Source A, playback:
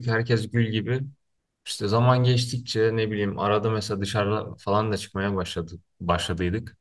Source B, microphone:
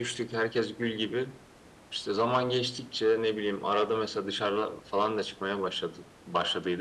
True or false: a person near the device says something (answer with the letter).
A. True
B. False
B